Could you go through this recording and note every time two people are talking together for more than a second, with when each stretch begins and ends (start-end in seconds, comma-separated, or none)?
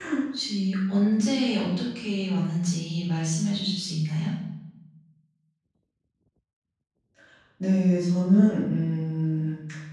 none